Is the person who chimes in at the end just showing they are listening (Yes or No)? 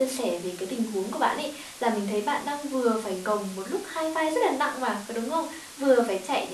Yes